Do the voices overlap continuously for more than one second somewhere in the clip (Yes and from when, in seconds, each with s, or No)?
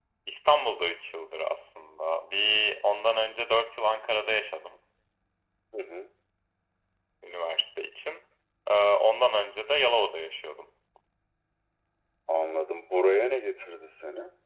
No